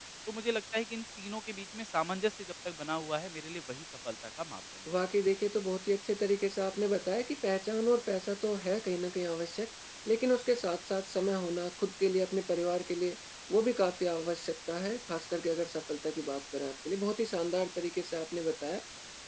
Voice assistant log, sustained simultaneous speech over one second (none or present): none